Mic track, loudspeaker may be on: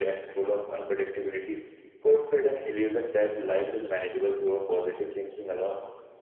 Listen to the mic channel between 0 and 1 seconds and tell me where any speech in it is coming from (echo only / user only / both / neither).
echo only